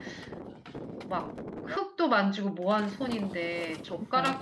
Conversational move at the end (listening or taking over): listening